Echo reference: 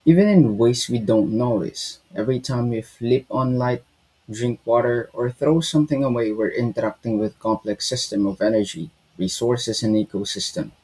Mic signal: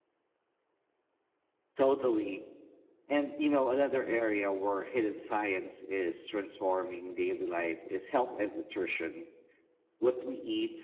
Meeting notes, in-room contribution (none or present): present